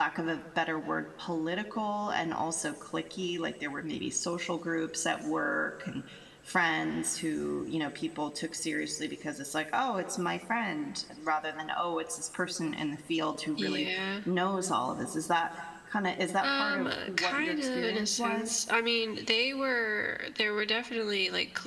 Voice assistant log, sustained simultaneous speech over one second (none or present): present